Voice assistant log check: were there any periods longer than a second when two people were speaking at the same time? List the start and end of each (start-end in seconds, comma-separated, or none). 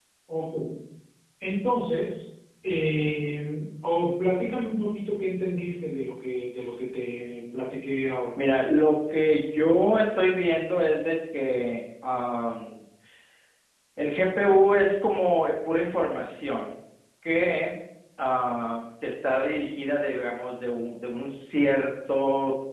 none